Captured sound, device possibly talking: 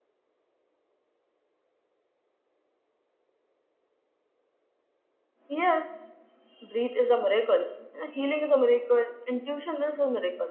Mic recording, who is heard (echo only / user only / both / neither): user only